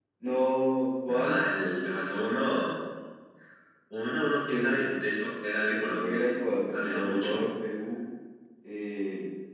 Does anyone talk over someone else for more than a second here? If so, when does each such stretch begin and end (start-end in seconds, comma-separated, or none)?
5.7-7.4